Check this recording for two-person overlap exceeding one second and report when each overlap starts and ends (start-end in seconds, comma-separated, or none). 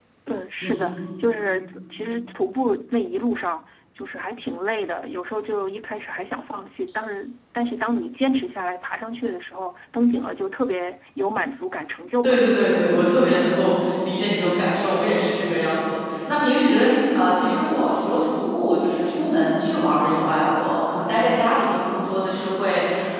none